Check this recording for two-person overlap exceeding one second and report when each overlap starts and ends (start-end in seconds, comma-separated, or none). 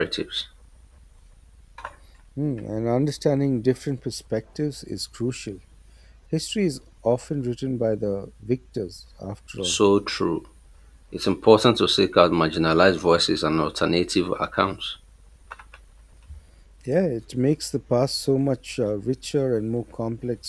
none